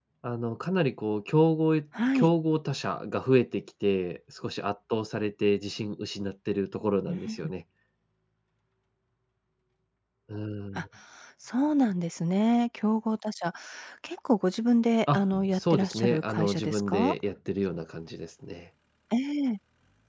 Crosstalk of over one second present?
Yes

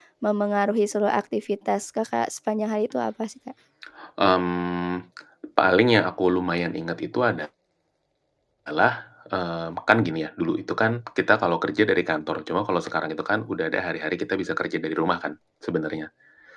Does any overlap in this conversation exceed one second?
No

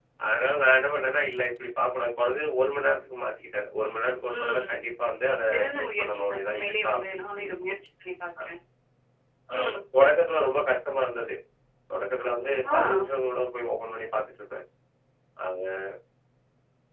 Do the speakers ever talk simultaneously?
Yes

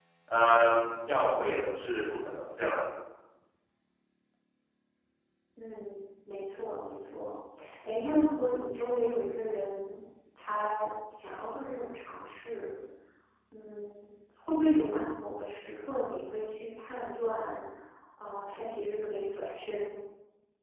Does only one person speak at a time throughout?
Yes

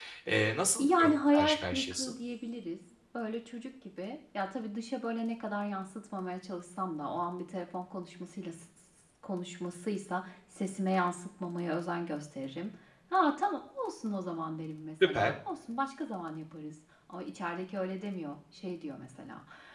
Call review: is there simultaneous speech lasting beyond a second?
Yes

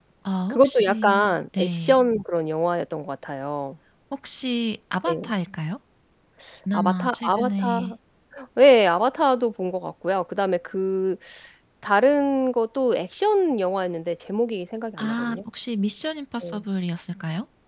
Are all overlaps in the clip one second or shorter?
No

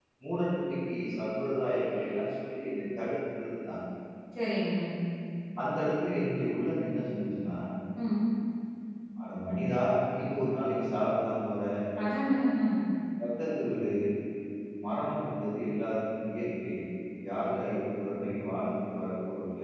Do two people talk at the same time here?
No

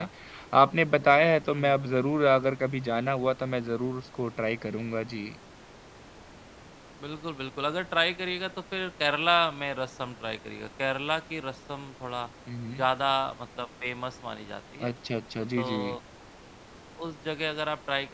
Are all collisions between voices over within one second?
Yes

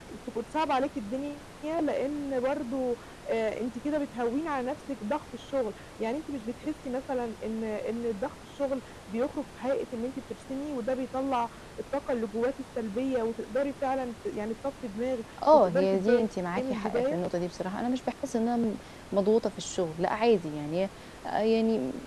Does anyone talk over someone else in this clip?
Yes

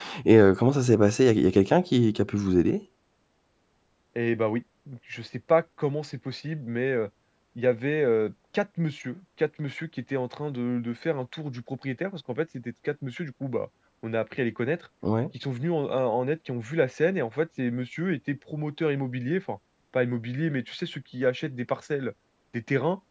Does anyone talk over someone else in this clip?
No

